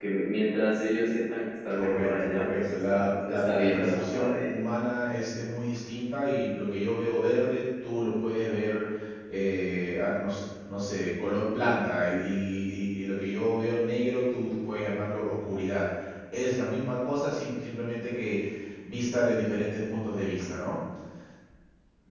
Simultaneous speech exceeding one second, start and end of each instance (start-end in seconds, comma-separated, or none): 1.8-4.5